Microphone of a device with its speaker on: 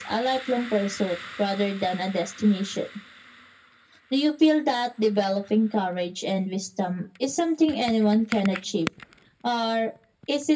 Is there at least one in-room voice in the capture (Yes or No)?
No